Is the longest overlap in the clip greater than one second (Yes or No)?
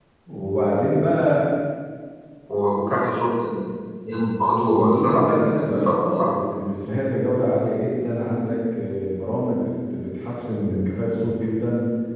Yes